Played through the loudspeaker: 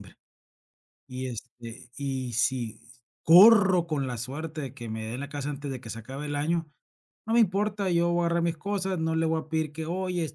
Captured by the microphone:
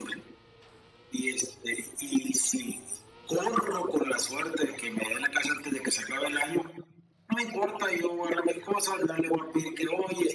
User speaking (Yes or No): No